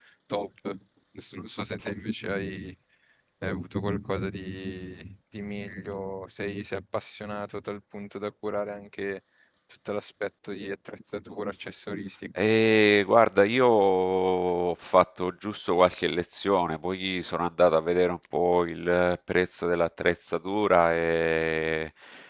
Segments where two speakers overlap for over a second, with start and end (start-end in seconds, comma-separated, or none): none